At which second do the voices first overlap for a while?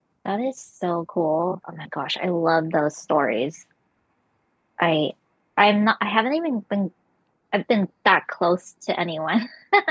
none

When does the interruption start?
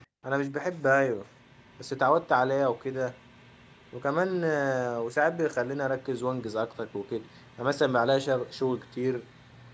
none

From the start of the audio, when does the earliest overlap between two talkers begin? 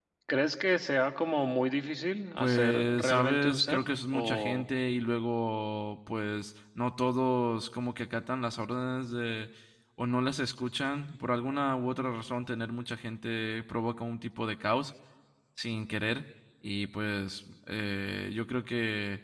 2.4 s

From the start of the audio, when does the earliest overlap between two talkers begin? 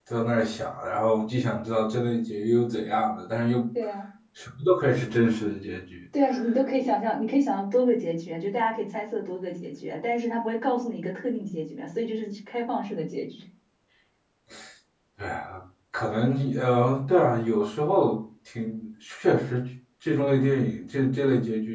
none

